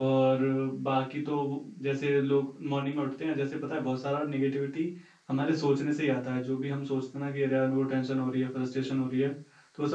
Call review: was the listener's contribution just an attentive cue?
Yes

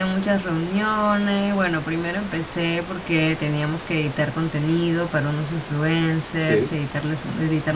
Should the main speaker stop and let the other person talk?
No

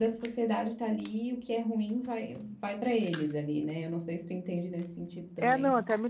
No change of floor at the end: No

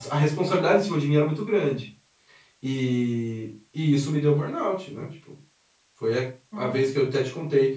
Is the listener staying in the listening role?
Yes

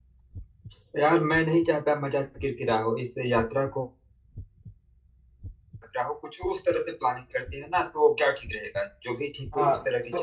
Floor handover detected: Yes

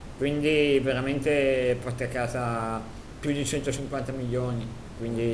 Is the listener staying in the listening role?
Yes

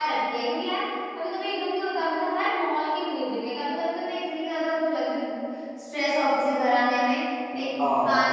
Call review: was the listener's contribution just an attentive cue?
Yes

